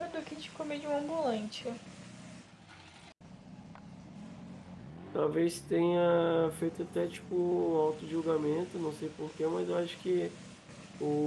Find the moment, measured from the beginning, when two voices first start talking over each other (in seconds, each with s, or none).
none